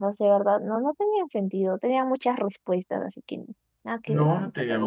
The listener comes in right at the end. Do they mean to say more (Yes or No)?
Yes